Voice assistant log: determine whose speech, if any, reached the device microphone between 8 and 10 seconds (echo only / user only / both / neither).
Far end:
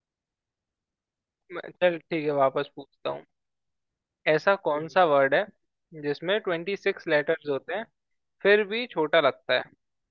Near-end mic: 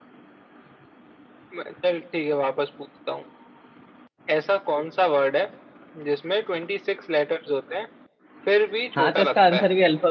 both